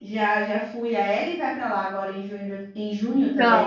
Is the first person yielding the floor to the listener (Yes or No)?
Yes